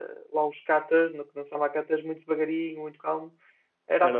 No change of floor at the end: No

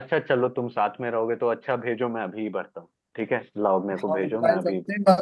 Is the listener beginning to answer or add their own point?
Yes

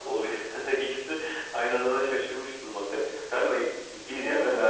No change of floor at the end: Yes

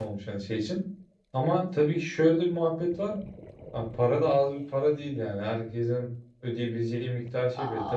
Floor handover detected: Yes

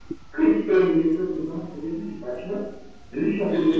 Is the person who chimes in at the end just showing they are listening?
No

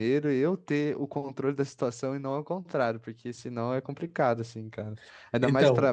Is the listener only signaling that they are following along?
No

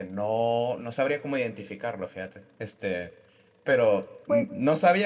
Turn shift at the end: No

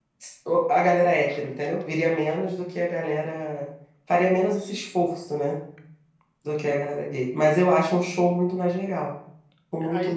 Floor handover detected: Yes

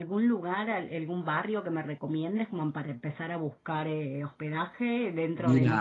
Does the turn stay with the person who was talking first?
Yes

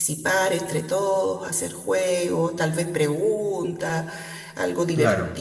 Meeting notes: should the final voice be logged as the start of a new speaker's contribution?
No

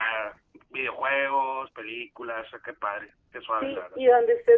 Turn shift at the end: Yes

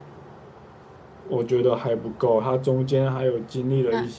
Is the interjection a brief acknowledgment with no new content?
No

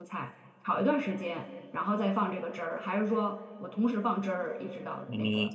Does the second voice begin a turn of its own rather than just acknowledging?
Yes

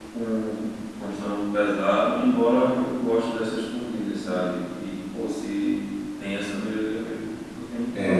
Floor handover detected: Yes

